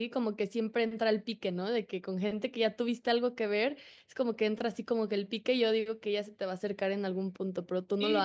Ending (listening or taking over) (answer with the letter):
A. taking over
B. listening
A